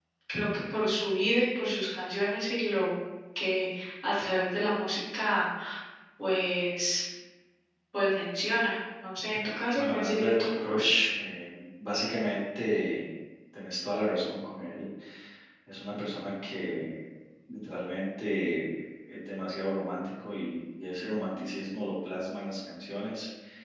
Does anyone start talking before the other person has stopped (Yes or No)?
Yes